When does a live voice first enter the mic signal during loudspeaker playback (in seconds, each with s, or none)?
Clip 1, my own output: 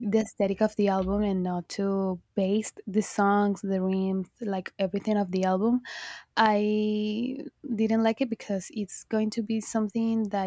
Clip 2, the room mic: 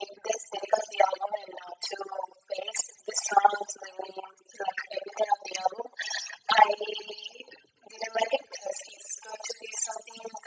none